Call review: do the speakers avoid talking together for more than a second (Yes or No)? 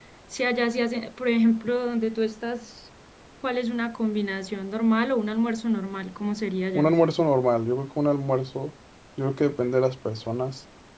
Yes